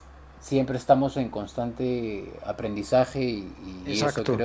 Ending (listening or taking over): listening